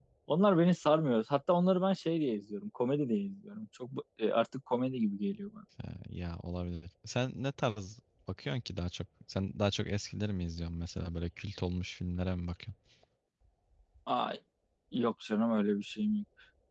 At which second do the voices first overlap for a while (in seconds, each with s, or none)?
none